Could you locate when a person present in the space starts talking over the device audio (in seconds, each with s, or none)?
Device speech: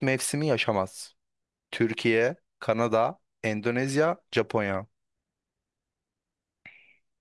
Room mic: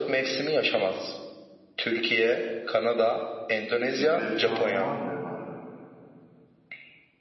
4.0 s